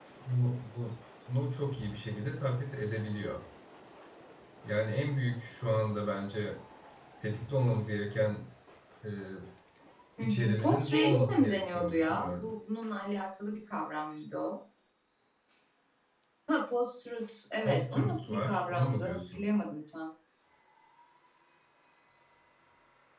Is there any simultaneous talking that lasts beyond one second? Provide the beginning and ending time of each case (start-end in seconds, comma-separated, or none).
10.2-12.5, 17.6-19.4